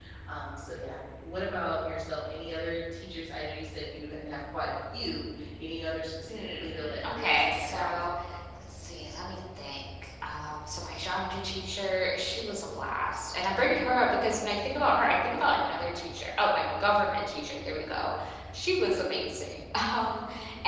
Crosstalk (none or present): present